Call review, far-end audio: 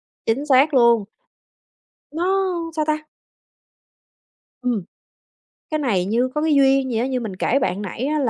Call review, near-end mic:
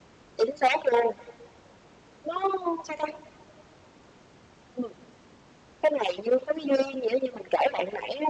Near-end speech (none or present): none